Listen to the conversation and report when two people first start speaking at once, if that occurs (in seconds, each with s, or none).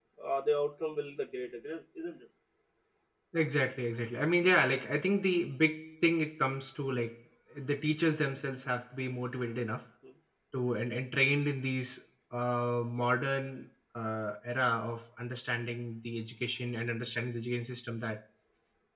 none